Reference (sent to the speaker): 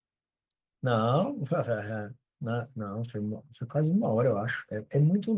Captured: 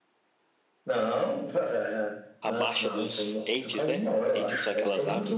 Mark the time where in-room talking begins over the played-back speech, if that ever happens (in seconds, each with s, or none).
2.4 s